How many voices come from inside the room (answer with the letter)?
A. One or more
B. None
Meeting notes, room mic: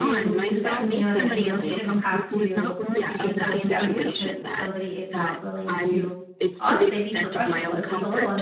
A